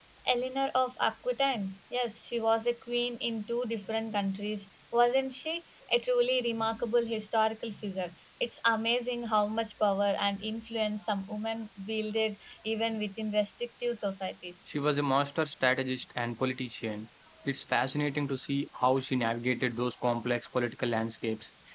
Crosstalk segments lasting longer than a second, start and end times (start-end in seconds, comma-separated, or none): none